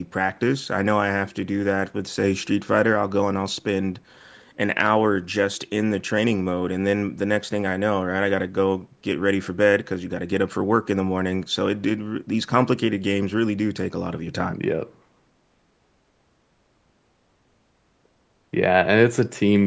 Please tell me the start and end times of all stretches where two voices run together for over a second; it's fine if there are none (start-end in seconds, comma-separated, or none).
none